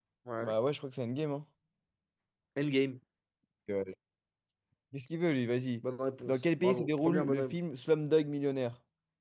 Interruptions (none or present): present